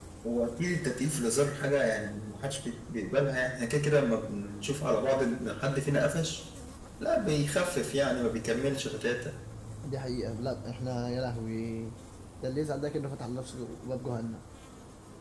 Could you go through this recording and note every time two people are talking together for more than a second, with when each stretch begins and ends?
none

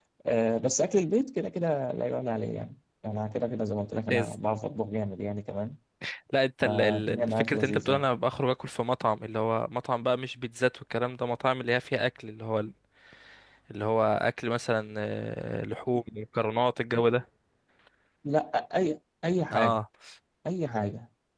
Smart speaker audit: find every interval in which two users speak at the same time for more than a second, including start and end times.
6.6-8.0

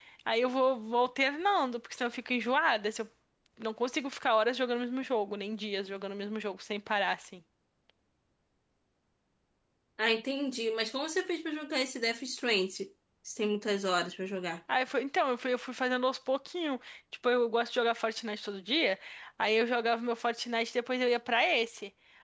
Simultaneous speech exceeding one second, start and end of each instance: none

